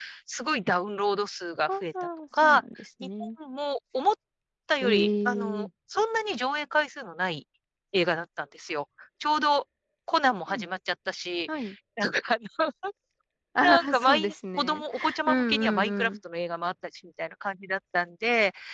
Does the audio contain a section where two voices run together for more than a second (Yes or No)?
Yes